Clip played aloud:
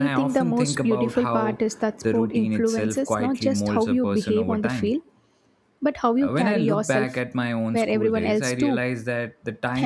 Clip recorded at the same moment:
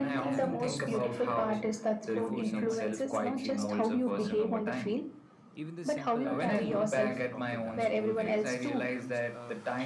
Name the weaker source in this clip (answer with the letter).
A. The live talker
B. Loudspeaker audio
A